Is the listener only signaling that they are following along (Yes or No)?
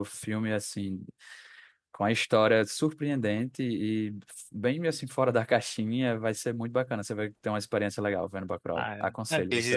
No